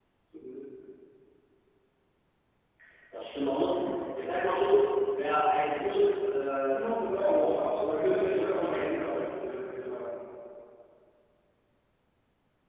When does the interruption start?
6.7 s

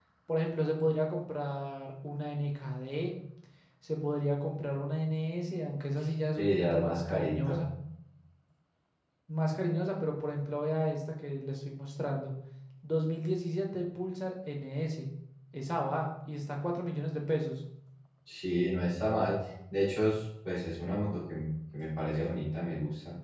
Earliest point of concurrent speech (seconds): 6.4 s

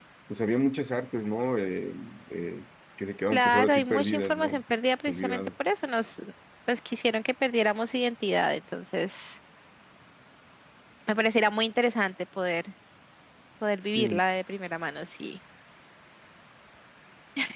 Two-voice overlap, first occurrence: 3.3 s

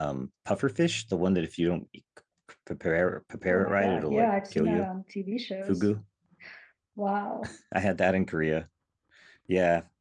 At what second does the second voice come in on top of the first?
3.5 s

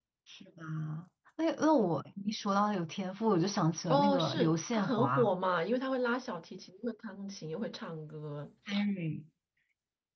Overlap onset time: 3.9 s

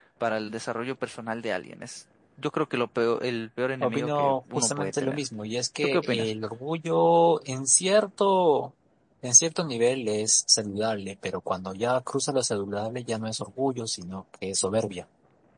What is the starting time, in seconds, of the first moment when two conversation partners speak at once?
3.8 s

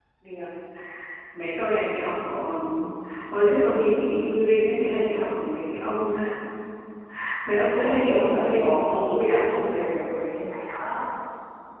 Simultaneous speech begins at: 7.7 s

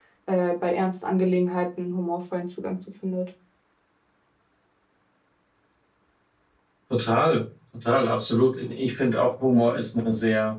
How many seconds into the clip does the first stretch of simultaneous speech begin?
none

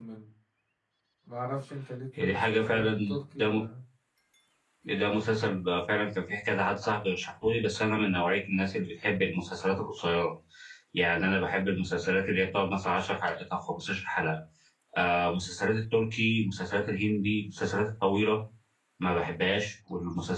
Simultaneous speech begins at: 2.2 s

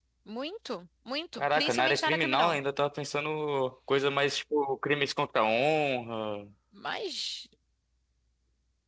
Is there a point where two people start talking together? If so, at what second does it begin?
1.3 s

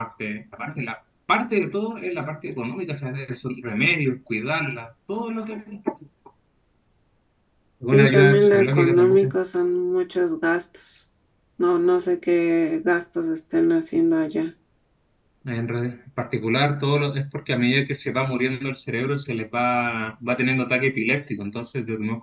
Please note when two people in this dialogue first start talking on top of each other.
7.9 s

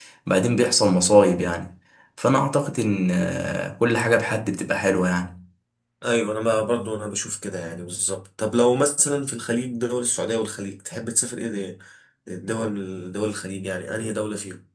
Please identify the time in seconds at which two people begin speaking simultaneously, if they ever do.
none

